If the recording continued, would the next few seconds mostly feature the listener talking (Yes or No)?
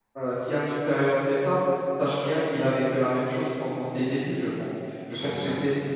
No